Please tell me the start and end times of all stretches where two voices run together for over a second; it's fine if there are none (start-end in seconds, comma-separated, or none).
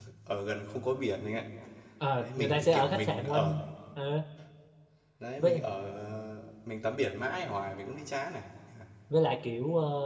2.2-3.6